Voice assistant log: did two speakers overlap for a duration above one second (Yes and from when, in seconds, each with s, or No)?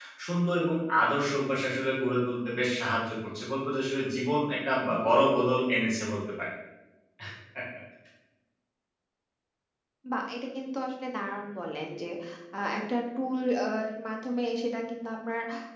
No